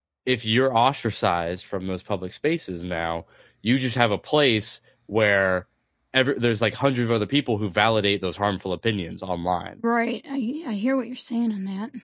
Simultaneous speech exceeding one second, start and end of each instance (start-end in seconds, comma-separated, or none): none